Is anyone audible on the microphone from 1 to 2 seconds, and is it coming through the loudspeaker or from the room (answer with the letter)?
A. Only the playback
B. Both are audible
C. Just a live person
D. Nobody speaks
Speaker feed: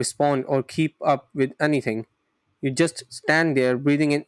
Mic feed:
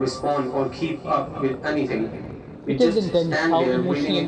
A